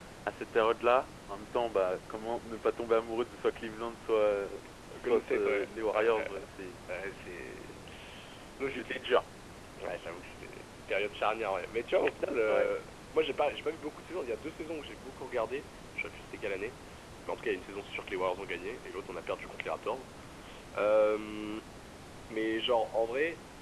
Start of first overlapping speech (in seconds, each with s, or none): 4.9 s